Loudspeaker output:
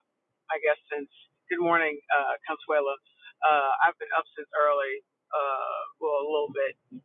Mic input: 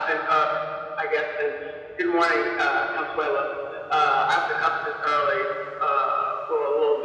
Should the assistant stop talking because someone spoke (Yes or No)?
No